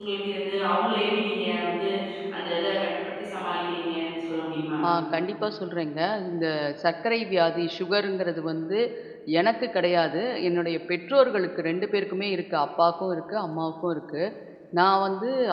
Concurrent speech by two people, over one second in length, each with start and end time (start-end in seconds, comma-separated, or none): none